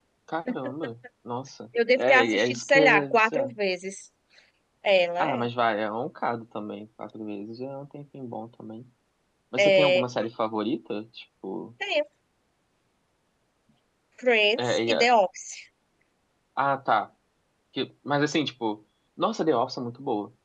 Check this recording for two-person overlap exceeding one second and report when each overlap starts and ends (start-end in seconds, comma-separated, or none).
2.0-3.5